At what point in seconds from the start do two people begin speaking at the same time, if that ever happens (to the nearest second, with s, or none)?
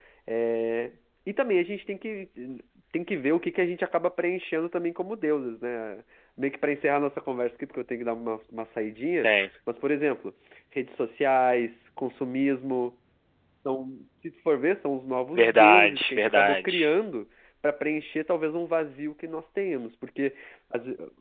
15 s